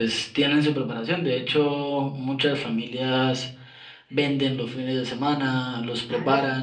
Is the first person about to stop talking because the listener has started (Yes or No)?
No